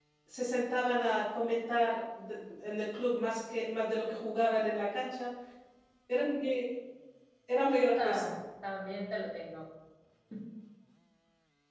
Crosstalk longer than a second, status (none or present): none